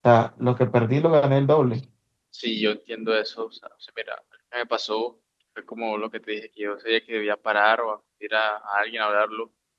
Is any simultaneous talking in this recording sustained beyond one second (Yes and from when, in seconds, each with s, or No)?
No